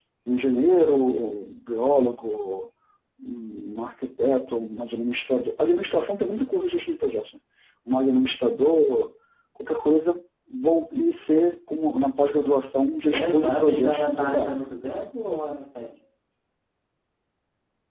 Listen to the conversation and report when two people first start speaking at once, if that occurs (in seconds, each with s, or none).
13.0 s